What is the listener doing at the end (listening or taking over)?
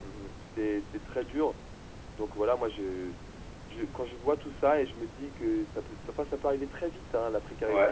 taking over